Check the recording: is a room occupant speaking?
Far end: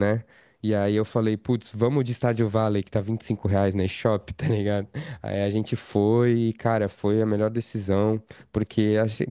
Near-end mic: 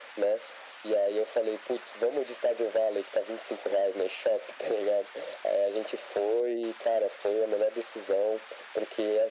No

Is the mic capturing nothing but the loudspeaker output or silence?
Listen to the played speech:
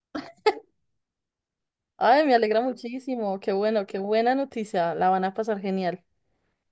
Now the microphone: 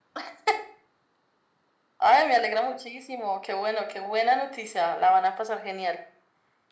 Yes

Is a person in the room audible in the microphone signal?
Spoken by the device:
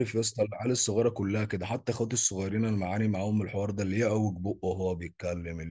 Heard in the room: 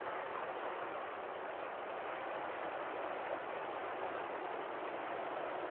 No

